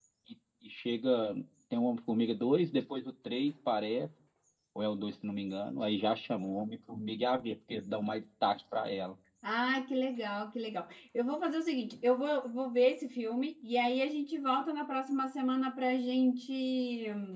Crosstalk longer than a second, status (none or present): none